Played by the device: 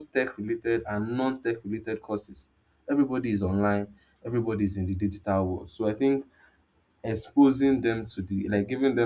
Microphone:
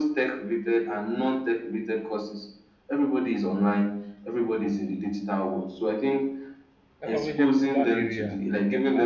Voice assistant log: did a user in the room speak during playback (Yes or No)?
Yes